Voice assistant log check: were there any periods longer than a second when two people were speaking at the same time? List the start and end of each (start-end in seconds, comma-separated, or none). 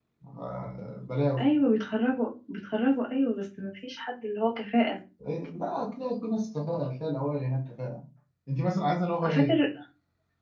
none